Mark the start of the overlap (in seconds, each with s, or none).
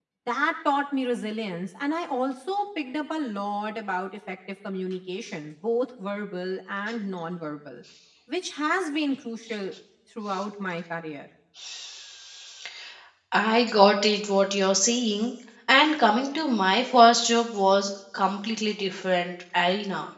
none